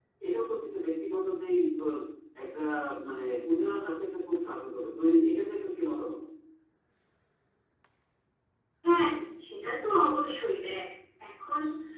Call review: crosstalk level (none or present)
none